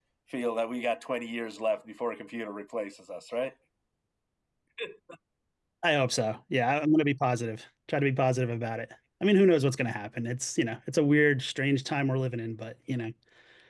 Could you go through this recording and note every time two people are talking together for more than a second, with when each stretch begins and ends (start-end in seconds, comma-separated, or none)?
none